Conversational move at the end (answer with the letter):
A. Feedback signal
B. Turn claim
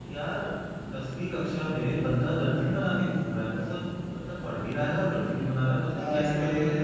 B